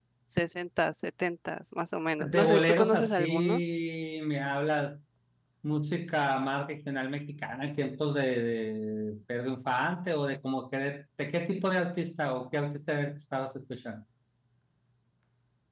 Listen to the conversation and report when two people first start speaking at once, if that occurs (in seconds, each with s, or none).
2.2 s